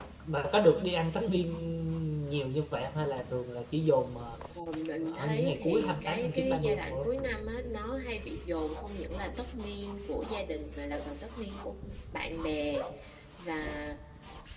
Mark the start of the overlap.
5.0 s

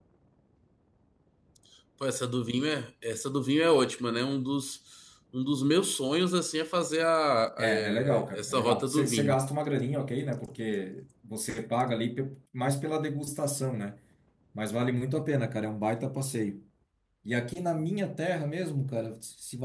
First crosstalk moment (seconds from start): 7.6 s

